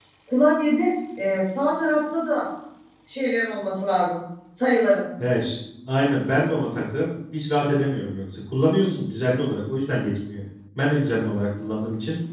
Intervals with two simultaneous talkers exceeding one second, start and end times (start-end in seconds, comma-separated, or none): none